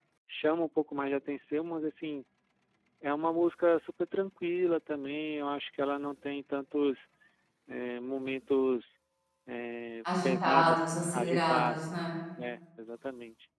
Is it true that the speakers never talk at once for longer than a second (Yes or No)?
No